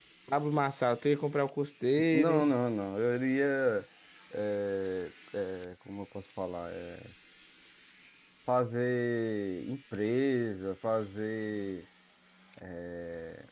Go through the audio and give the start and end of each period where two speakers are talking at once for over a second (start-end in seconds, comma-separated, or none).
none